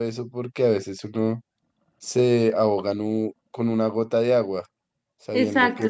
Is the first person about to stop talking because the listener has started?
Yes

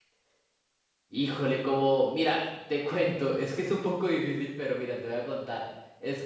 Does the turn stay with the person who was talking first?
Yes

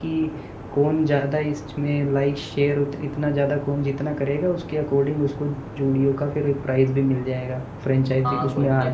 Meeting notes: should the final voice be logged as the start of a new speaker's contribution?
Yes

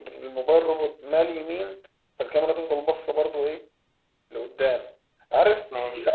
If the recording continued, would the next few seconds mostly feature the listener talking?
No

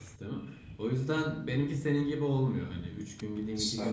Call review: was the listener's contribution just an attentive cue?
Yes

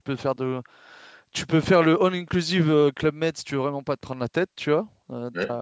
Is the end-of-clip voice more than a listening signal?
No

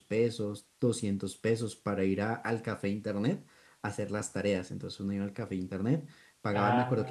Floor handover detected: Yes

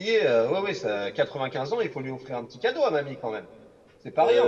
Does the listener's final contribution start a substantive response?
Yes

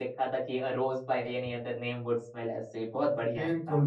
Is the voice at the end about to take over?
Yes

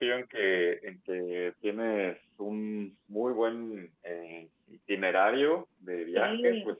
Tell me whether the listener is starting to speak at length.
No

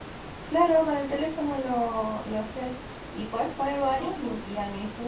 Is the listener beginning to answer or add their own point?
No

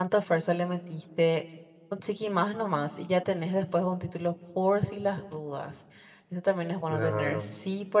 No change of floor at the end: Yes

